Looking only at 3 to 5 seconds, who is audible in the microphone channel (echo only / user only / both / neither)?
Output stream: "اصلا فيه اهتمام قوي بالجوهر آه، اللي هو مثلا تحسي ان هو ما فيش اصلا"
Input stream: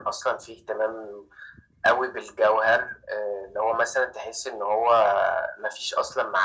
echo only